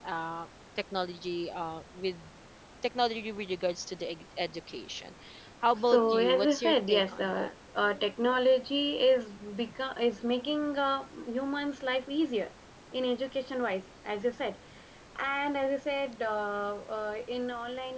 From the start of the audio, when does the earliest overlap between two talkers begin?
5.9 s

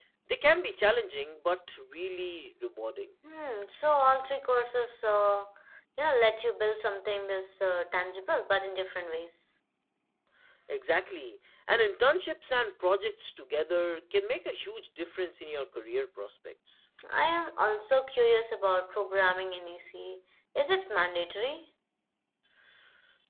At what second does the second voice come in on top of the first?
none

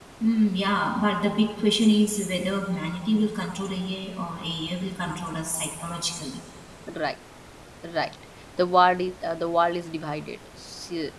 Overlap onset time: none

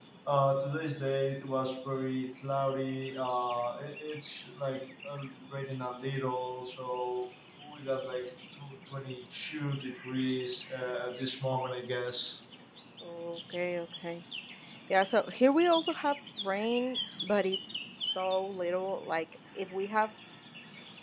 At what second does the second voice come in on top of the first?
none

